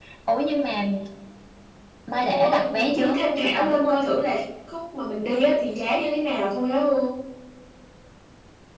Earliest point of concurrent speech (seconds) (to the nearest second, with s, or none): 2 s